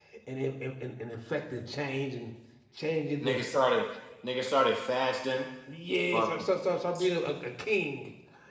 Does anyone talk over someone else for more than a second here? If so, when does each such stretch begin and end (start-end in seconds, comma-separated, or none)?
none